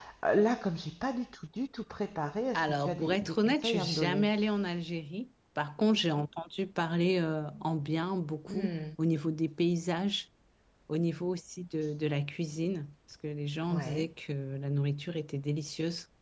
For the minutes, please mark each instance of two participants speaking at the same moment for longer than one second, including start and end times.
2.5-4.2

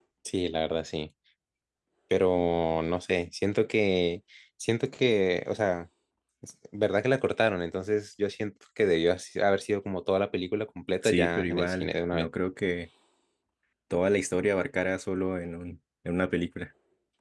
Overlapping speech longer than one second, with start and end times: 11.0-12.3

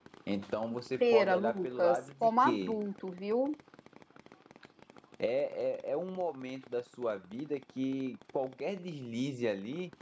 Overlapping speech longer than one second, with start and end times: 1.0-2.8

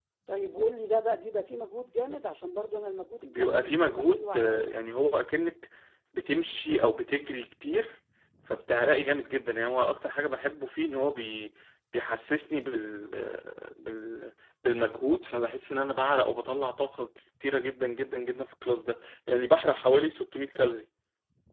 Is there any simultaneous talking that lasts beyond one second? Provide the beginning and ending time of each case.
3.2-4.7

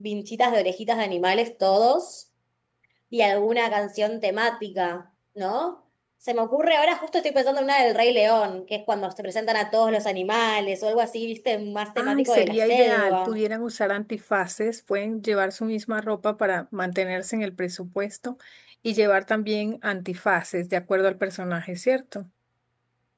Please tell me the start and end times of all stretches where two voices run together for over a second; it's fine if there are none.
12.0-13.4

